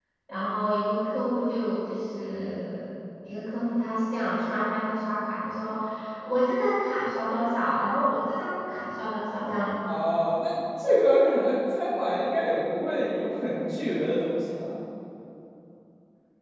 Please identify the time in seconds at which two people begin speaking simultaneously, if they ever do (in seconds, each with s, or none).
none